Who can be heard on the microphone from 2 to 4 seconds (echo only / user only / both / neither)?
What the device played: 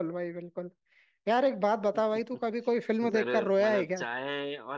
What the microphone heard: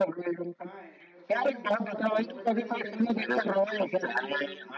both